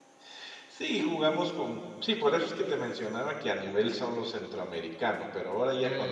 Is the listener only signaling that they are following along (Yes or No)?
Yes